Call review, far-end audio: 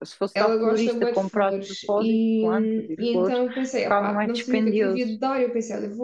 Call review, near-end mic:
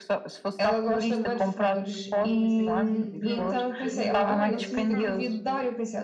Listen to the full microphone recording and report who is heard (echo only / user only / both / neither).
both